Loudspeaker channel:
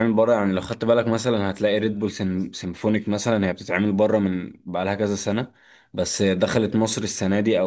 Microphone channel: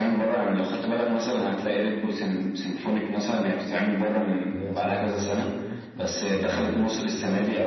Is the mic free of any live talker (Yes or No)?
No